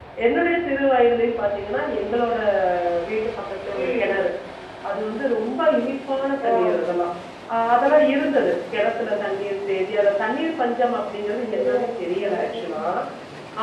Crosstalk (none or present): present